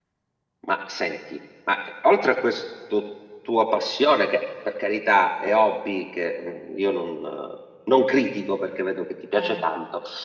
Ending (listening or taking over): listening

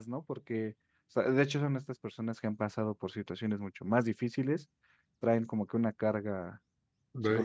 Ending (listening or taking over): taking over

